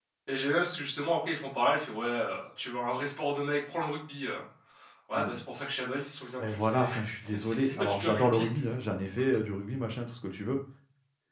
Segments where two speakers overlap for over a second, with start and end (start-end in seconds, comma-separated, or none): 6.5-8.4